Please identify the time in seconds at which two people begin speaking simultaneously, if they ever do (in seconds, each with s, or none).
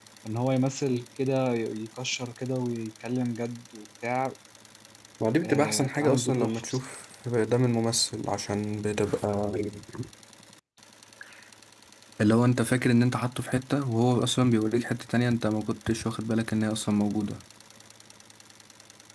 5.4 s